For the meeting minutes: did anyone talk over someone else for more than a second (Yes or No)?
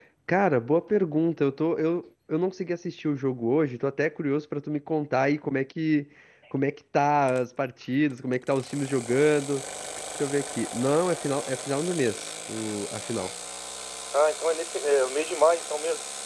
No